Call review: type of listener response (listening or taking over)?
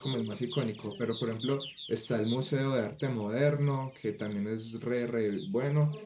listening